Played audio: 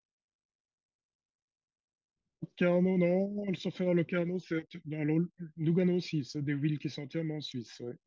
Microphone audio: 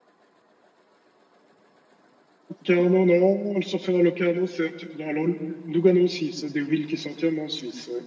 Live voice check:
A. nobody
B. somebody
A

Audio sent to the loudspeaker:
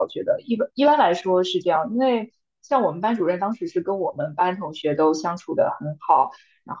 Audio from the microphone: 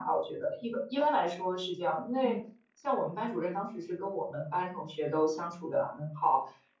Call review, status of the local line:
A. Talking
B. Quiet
A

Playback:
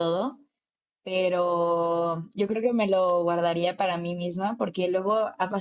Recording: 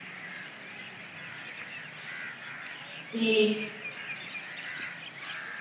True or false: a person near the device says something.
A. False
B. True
B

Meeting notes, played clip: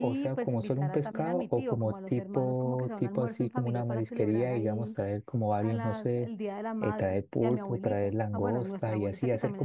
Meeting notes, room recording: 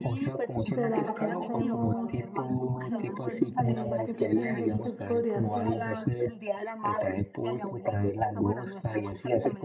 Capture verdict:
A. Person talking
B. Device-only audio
A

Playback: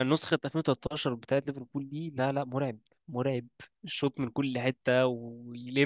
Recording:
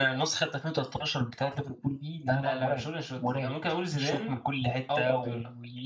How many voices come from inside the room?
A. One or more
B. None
A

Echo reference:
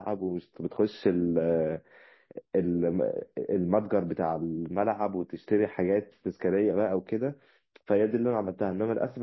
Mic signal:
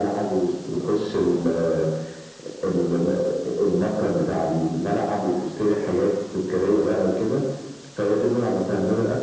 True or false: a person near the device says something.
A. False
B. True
A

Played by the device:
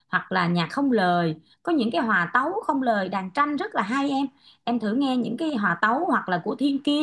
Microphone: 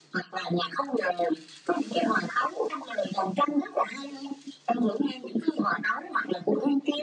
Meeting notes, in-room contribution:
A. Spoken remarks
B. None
B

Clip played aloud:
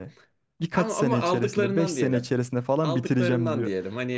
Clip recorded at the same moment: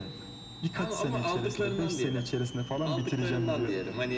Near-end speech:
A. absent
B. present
A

